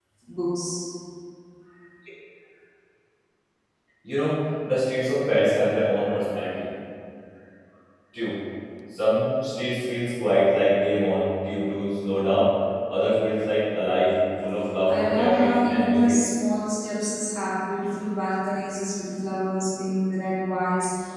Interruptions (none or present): present